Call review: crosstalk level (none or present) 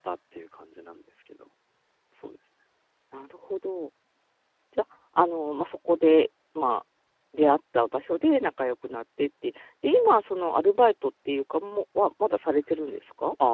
none